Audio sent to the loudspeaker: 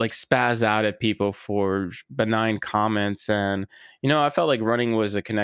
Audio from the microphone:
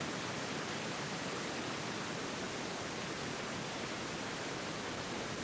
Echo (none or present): none